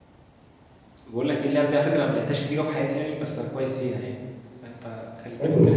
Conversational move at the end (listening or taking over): taking over